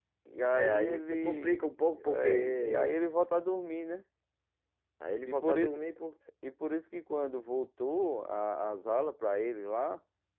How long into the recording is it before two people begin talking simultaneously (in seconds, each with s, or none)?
0.5 s